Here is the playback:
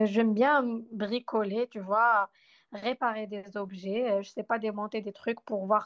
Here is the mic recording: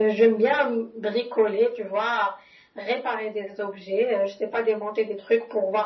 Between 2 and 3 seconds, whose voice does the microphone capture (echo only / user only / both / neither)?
echo only